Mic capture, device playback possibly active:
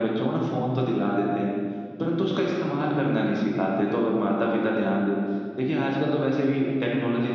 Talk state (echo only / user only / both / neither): echo only